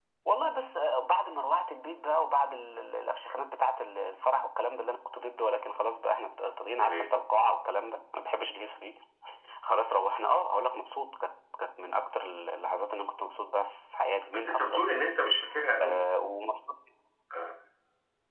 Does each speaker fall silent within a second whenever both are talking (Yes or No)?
Yes